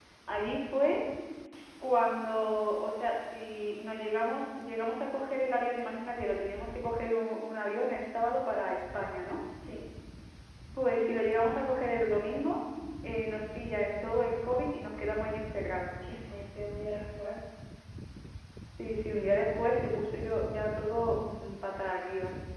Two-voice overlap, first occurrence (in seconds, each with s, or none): none